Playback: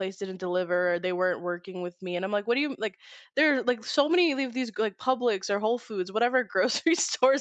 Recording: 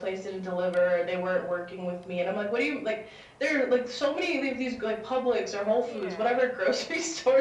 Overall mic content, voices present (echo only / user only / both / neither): both